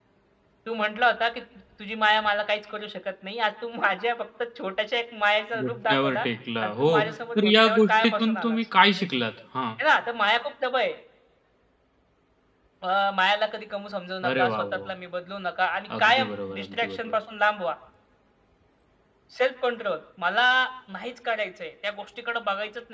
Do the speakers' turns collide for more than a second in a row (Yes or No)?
Yes